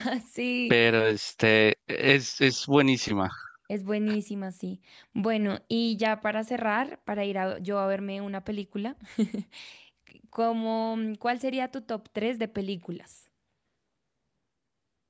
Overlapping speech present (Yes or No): No